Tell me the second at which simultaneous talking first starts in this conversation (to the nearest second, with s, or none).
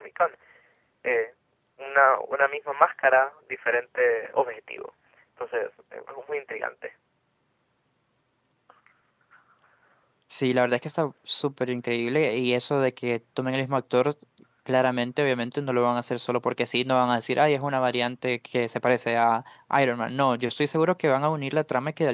none